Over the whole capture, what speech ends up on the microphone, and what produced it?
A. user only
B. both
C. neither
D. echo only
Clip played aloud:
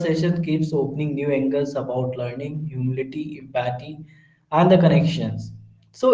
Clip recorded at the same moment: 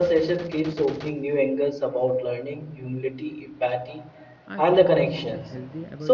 B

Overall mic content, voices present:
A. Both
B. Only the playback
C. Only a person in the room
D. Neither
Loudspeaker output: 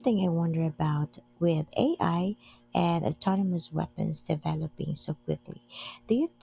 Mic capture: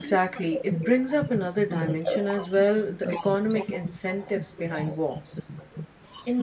A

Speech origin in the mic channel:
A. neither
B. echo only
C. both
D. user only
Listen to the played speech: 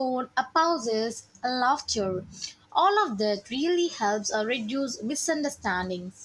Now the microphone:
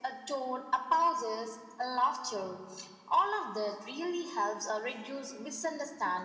B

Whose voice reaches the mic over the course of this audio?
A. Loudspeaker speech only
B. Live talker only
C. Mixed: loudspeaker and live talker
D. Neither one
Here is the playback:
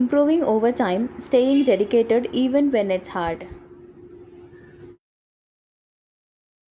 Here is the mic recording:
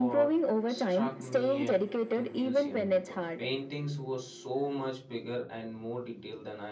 C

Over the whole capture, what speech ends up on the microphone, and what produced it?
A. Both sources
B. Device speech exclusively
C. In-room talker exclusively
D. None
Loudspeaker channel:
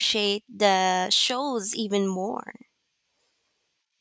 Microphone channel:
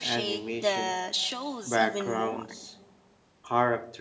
A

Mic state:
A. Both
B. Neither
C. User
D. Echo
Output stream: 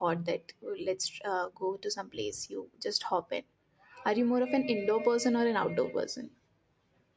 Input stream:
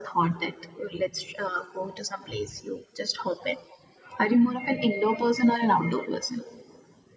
D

